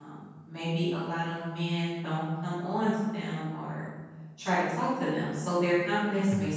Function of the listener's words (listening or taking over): listening